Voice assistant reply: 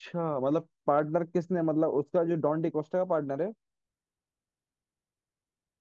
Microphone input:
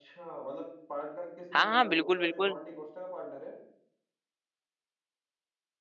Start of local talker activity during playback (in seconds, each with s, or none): 1.5 s